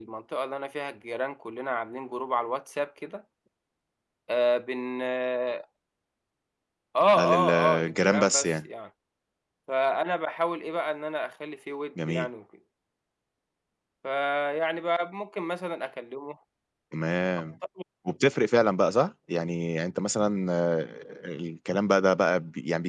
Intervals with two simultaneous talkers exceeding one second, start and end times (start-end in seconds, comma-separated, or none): 7.2-8.5